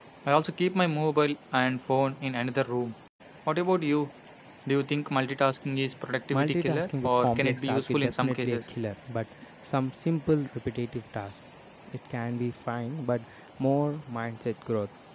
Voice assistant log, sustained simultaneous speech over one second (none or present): present